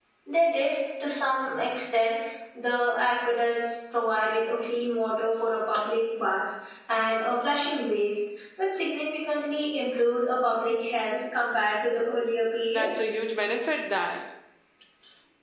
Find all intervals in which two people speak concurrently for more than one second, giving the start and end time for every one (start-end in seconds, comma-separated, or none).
none